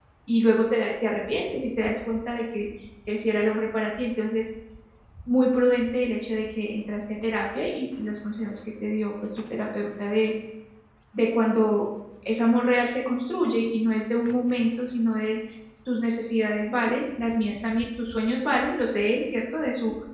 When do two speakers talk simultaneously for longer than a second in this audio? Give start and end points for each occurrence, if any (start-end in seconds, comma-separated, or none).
none